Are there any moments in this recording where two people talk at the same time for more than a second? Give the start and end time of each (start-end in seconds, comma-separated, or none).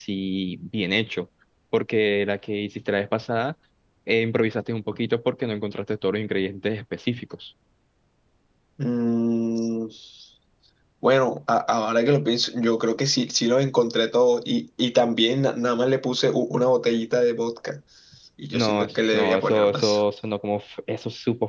18.5-20.0